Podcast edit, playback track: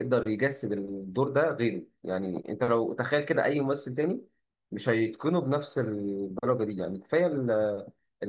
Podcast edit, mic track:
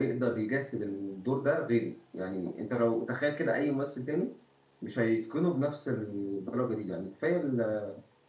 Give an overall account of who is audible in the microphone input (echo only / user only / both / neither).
echo only